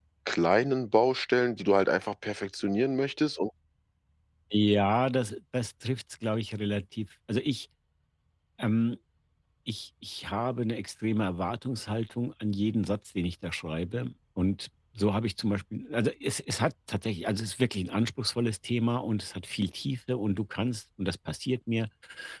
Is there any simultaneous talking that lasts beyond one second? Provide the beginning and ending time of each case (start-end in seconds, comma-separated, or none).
none